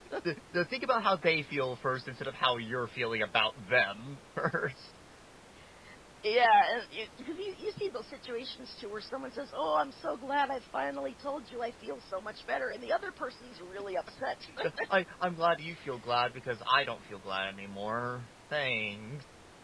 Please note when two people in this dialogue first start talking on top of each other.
none

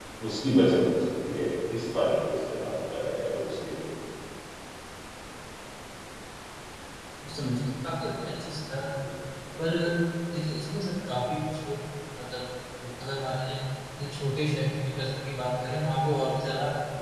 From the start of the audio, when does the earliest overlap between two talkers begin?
none

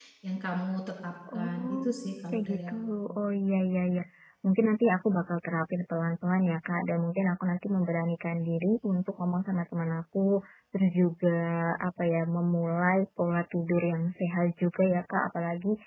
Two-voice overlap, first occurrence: 1.3 s

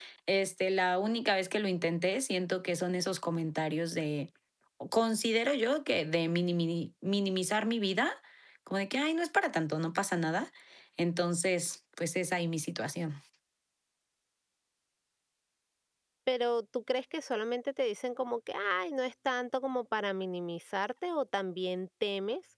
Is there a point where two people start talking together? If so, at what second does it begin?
none

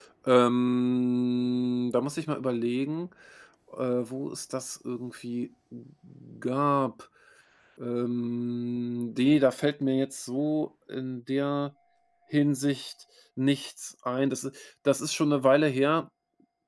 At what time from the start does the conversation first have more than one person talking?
none

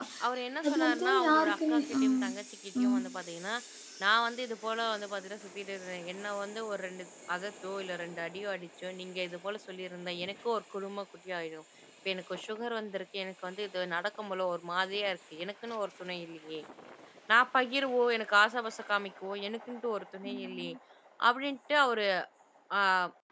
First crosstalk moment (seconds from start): 0.7 s

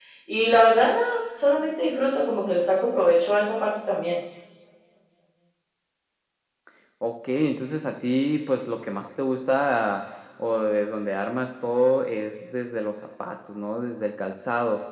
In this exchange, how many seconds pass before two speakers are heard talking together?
none

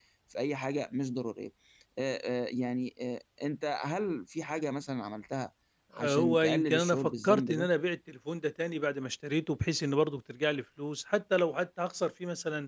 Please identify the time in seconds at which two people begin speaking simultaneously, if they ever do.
6.0 s

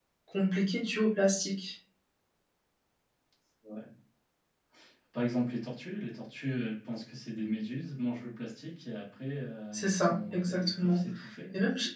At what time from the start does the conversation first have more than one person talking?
9.7 s

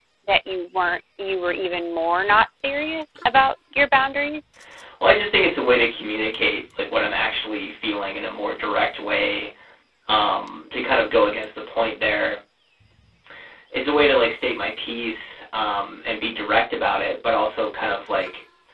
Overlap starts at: none

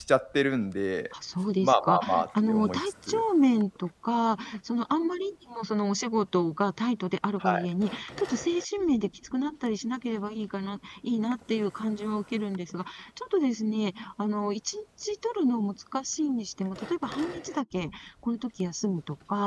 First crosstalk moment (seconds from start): 1.6 s

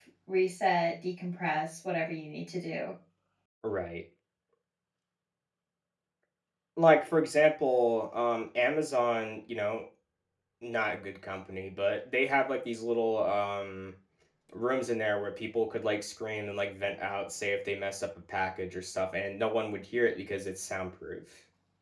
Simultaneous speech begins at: none

